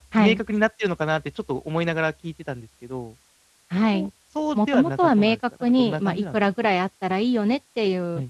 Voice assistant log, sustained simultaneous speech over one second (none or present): present